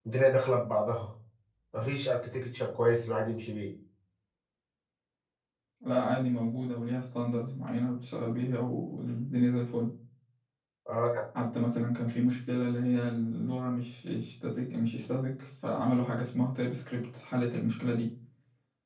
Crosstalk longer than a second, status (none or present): none